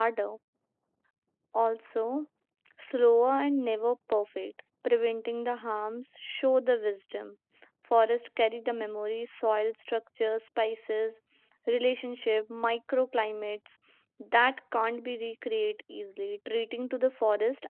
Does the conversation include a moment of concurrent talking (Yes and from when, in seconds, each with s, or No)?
No